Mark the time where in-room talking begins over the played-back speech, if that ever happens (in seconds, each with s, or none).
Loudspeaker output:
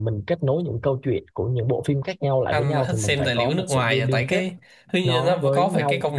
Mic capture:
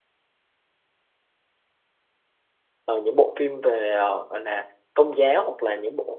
2.8 s